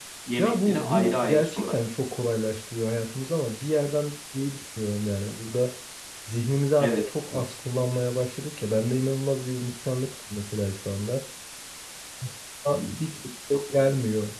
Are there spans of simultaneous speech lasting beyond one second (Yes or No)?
Yes